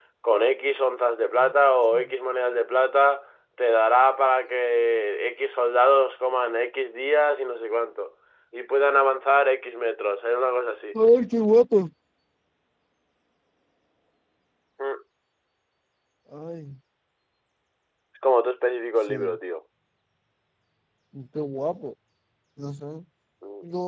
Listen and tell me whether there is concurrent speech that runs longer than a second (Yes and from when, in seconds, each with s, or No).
No